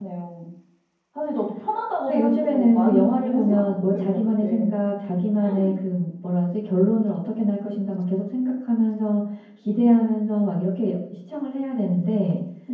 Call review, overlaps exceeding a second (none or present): present